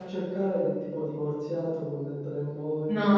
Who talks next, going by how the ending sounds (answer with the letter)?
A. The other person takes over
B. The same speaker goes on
A